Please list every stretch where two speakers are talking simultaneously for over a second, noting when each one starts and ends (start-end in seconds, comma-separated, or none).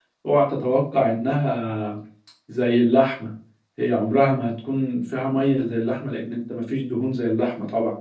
none